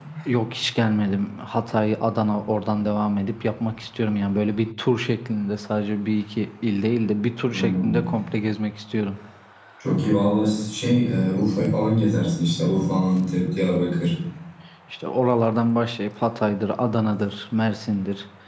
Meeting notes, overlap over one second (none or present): none